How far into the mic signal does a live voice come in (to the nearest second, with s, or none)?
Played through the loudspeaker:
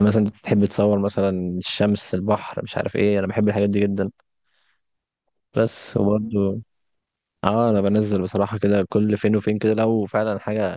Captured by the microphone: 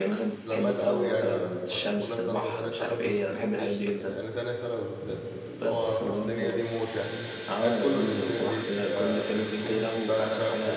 0 s